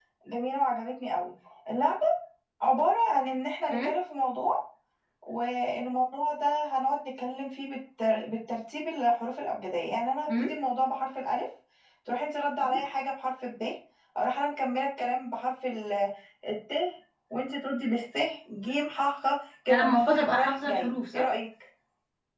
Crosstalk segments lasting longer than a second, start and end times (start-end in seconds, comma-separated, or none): 19.7-21.3